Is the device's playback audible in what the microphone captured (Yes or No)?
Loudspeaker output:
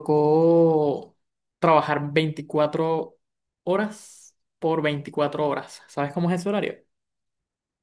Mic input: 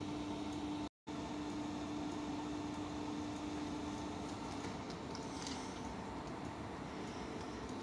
No